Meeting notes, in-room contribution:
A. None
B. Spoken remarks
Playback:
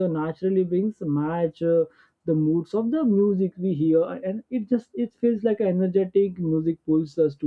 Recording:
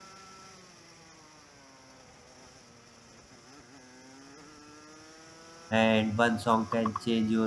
B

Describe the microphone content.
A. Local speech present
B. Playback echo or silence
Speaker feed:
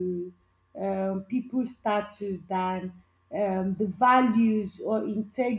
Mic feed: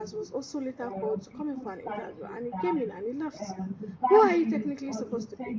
A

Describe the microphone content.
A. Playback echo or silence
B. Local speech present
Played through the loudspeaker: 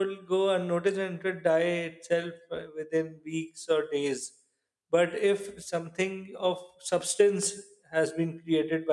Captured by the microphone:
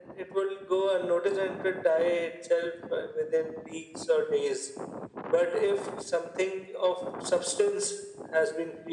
A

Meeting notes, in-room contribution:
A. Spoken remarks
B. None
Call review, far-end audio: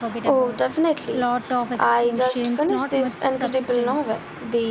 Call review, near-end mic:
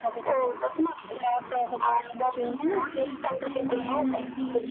A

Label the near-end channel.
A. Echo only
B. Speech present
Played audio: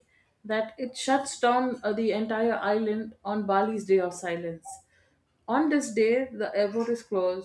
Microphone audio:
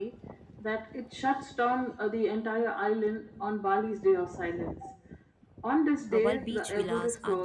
B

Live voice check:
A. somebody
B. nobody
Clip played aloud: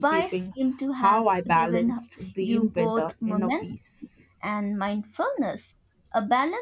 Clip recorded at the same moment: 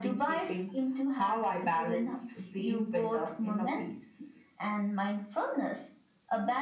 B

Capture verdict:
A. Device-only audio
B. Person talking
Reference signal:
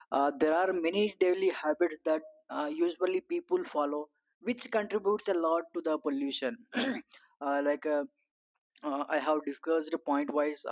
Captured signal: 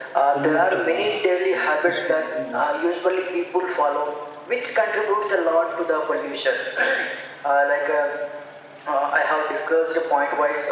B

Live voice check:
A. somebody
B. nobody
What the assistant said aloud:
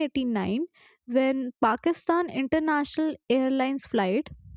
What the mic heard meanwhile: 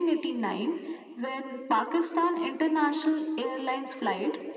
B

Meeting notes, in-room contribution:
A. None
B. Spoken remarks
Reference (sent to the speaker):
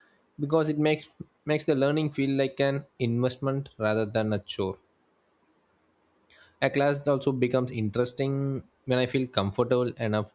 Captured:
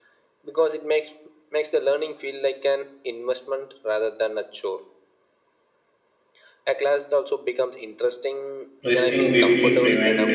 B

